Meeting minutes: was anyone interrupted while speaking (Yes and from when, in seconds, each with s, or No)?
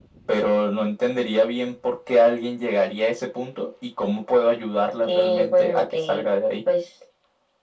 Yes, from 5.0 s